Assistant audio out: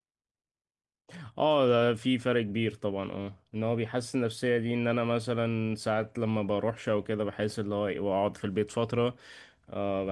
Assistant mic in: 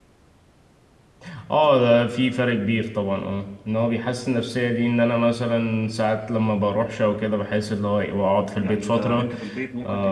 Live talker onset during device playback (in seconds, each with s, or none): 8.6 s